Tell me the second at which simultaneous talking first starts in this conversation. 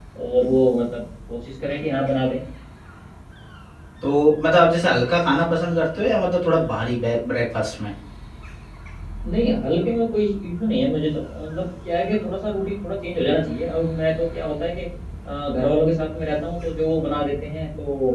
none

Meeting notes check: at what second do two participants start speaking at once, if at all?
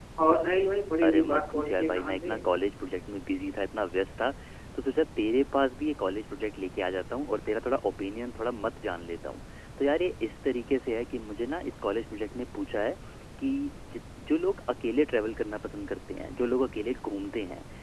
1.0 s

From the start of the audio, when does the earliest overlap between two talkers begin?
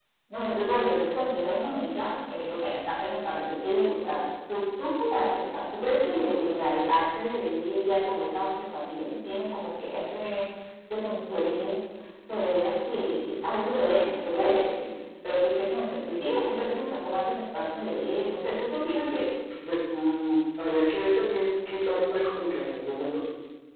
none

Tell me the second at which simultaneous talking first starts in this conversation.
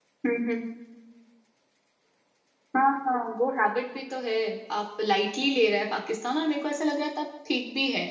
none

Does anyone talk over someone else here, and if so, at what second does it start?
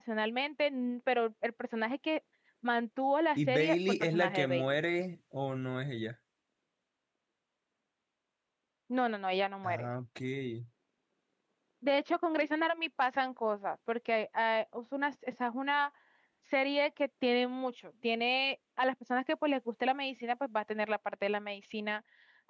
3.4 s

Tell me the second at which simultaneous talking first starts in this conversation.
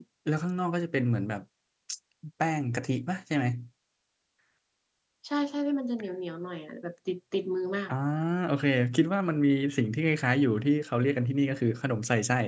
none

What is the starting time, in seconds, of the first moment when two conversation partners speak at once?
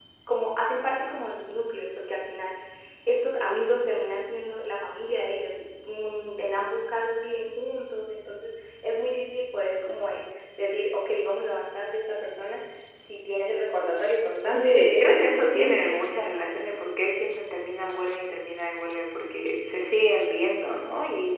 14.4 s

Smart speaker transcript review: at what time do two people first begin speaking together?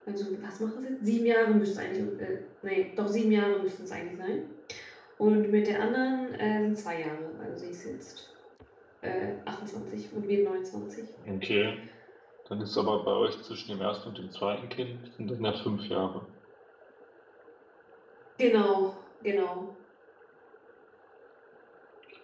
none

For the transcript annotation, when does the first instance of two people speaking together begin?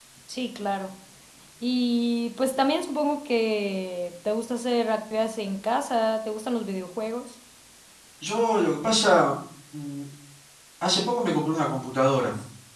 none

